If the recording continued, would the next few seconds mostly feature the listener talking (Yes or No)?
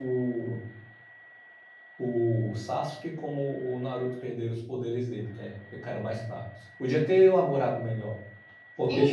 Yes